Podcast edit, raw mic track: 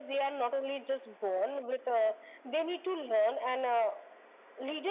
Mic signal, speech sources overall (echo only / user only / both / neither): echo only